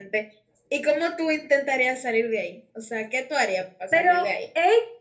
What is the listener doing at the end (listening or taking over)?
taking over